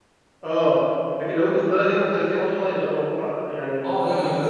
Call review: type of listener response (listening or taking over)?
taking over